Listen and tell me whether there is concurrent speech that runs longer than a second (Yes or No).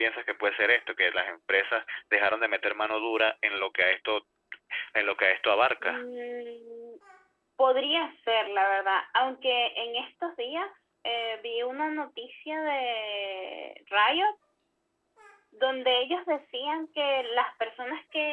No